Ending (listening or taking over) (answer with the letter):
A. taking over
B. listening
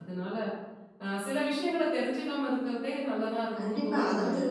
A